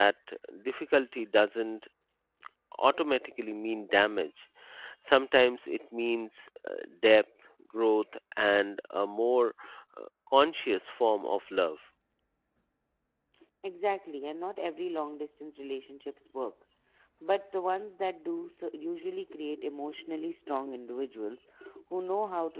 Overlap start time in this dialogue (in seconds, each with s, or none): none